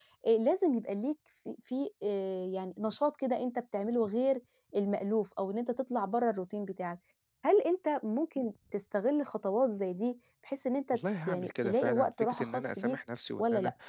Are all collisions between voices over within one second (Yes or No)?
No